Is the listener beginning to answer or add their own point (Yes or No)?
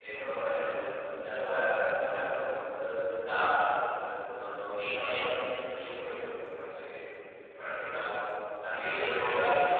No